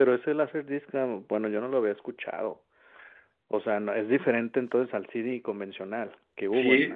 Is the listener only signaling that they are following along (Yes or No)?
No